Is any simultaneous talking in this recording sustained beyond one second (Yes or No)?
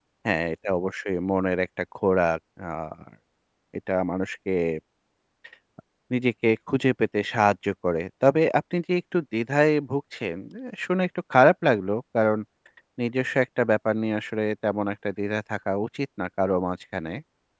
No